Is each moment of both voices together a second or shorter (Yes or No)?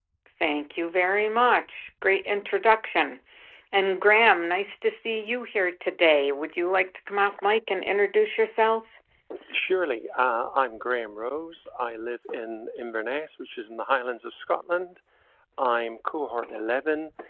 Yes